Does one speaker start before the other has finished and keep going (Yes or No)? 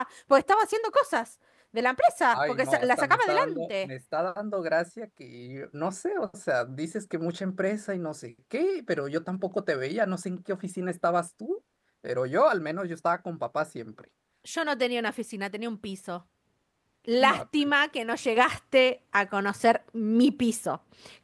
Yes